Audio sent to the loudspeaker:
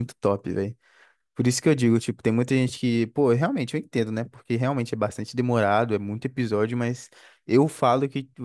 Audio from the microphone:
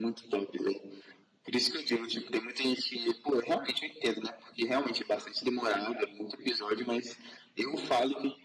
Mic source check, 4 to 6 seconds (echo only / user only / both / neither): echo only